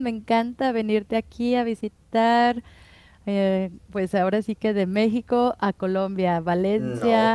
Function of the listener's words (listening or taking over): listening